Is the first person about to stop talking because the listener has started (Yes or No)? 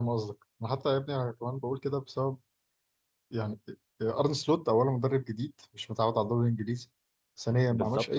No